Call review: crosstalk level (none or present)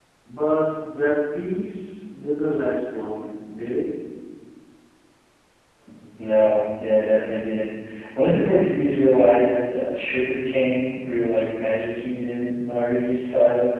none